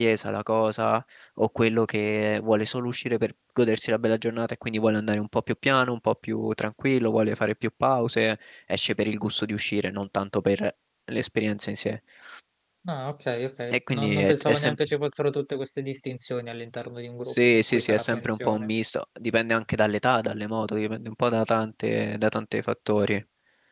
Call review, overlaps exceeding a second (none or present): present